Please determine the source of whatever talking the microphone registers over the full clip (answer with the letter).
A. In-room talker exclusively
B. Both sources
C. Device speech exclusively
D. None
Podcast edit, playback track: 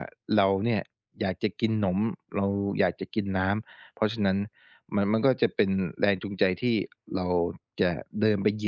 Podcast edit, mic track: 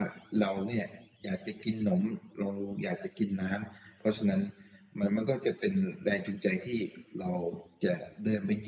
C